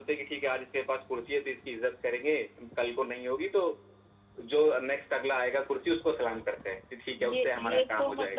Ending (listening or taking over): taking over